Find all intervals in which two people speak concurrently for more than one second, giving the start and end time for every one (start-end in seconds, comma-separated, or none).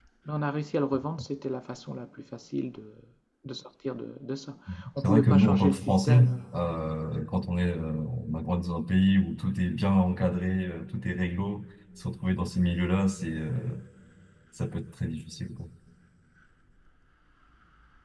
5.0-6.4